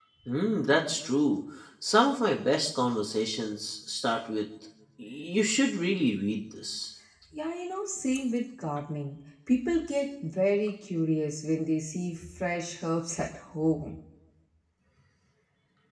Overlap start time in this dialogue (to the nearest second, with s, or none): none